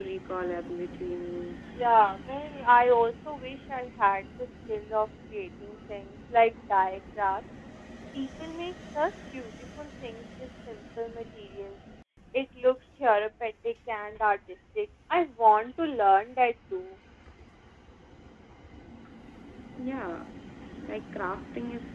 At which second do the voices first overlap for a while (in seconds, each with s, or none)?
none